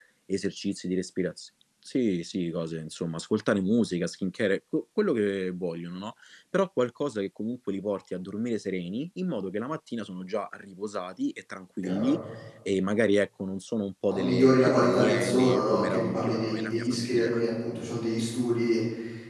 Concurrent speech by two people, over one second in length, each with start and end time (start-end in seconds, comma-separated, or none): 14.1-17.3